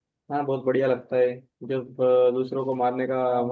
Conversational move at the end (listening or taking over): listening